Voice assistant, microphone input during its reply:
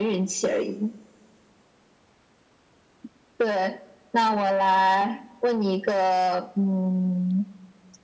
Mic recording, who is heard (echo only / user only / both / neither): echo only